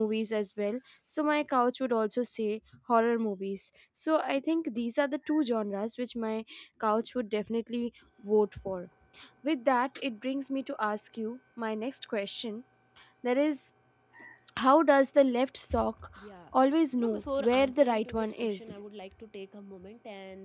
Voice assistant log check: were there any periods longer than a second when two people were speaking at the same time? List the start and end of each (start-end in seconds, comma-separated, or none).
17.0-18.8